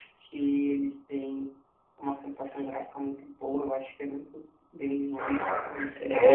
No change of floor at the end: No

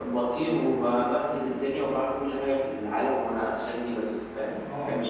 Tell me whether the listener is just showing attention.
No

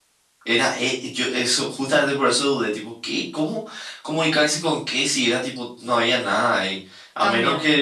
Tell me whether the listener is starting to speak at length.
No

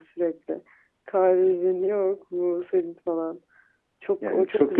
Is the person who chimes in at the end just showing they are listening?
No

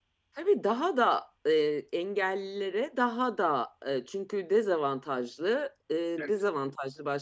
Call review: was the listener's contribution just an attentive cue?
Yes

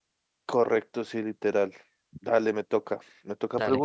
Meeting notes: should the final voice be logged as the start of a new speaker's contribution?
No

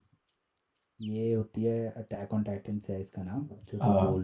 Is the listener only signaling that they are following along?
Yes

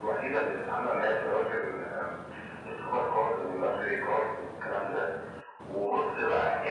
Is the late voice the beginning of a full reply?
No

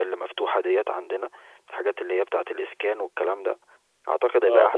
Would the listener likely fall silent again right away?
Yes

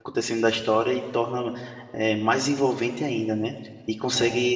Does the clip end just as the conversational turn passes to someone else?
No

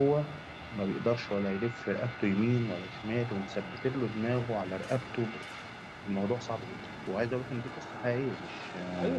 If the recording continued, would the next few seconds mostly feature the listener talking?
Yes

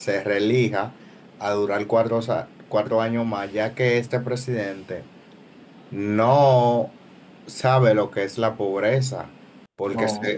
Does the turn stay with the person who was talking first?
Yes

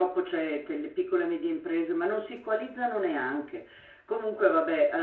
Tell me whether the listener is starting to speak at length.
No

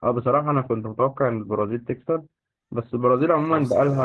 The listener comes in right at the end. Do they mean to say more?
No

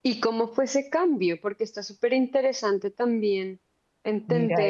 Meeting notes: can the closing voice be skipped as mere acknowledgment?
No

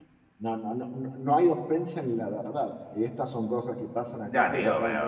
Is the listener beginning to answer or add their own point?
Yes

